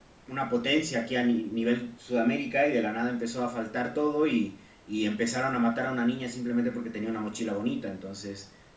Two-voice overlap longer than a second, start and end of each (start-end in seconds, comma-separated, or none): none